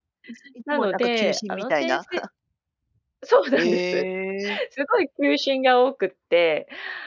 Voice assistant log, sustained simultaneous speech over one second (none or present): present